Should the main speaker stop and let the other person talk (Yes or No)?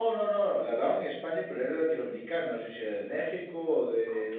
No